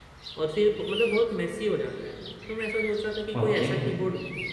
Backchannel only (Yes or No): Yes